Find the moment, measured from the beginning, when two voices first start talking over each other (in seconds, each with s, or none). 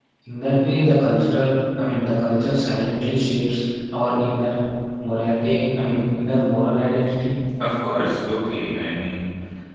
none